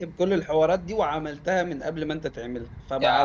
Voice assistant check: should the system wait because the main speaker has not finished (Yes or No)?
No